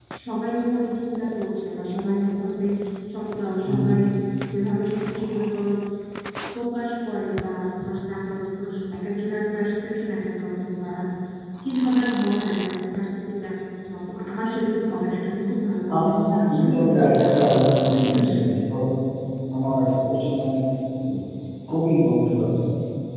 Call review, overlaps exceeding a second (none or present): present